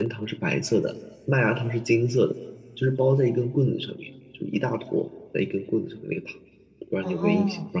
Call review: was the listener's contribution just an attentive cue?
No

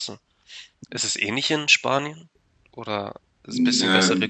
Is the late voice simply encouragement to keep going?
No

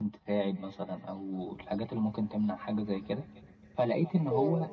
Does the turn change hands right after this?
No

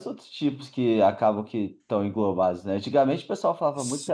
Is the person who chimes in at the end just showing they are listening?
Yes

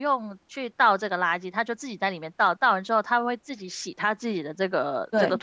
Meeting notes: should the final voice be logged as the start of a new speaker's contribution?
Yes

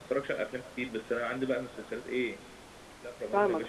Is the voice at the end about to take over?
Yes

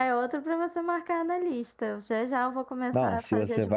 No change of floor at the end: No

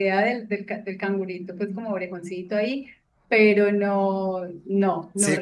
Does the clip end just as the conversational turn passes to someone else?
Yes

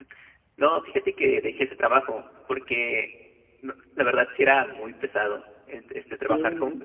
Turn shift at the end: No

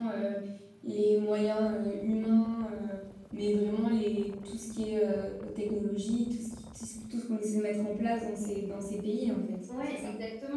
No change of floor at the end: No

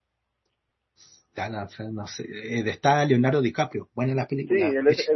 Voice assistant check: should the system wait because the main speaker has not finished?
No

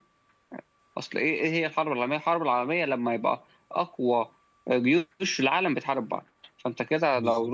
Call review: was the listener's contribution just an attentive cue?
Yes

